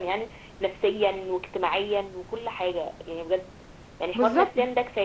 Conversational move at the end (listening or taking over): listening